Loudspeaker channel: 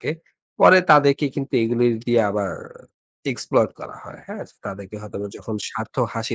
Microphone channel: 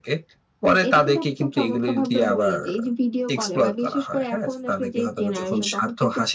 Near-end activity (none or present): present